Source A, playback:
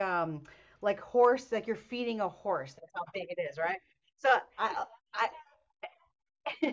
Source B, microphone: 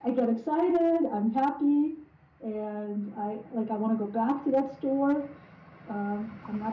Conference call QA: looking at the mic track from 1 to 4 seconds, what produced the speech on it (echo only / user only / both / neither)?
user only